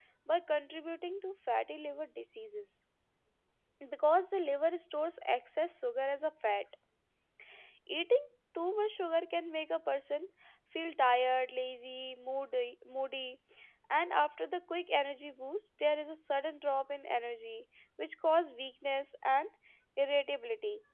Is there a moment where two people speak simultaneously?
No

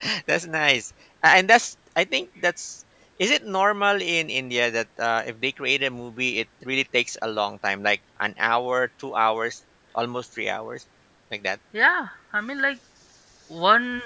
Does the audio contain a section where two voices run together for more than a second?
No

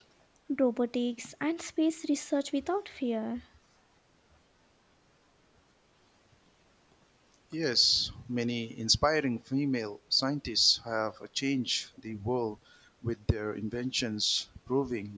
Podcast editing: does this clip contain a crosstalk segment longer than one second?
No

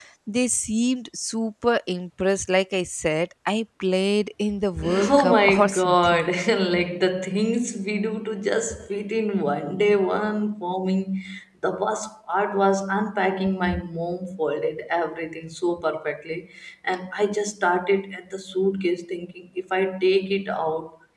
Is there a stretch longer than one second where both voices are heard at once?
Yes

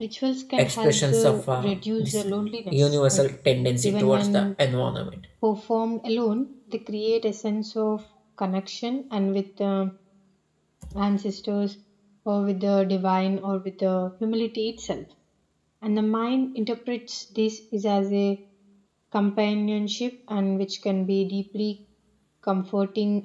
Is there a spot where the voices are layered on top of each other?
Yes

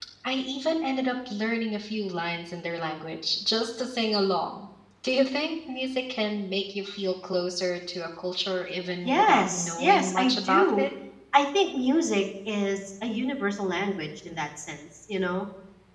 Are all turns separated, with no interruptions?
No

